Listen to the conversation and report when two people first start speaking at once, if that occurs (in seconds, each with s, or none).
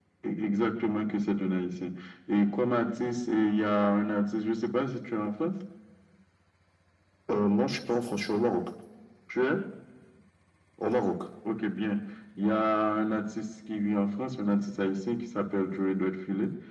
none